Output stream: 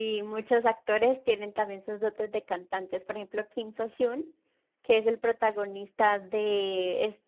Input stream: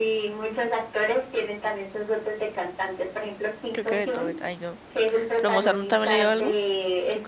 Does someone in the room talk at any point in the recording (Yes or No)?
Yes